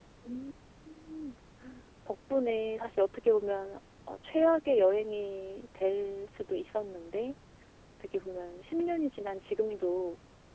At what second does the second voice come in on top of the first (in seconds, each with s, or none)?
none